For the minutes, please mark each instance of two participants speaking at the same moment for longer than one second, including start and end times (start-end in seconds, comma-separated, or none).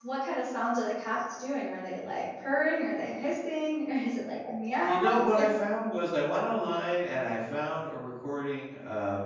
none